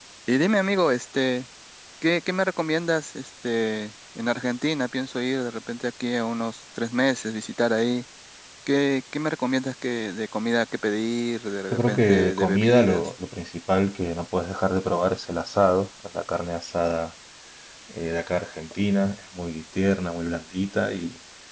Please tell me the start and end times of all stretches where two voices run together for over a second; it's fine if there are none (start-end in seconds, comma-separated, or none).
11.7-13.1